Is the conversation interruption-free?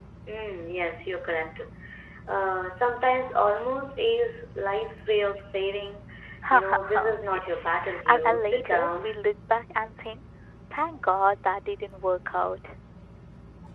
No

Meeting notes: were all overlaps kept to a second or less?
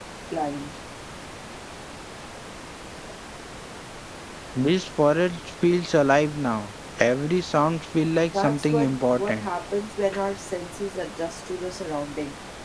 No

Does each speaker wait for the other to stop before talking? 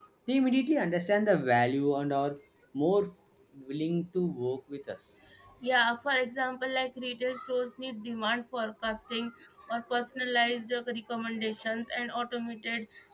Yes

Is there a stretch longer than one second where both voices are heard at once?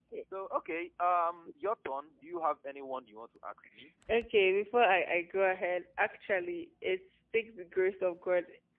No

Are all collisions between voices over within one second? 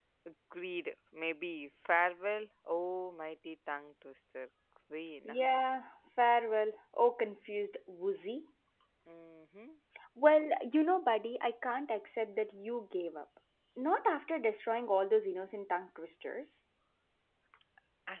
Yes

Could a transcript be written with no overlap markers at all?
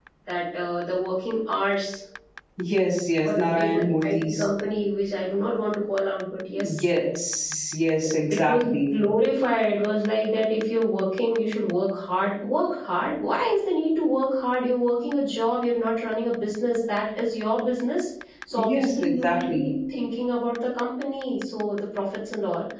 No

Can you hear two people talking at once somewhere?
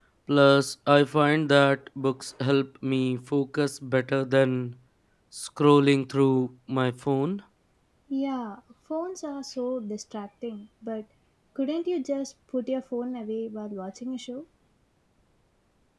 No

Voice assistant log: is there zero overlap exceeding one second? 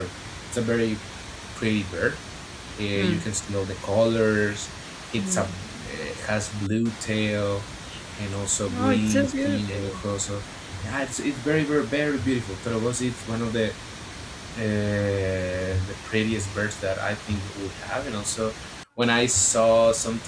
No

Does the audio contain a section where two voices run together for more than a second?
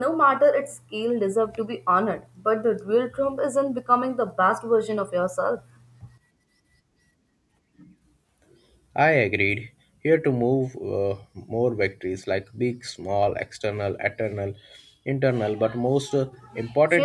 No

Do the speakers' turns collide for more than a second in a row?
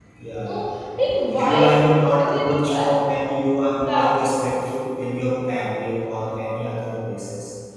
Yes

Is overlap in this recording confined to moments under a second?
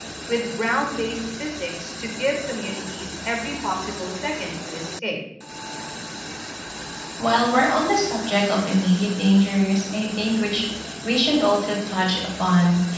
Yes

